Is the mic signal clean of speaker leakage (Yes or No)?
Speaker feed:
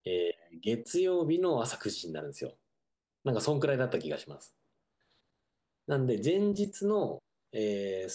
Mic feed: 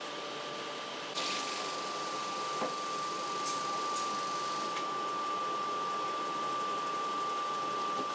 Yes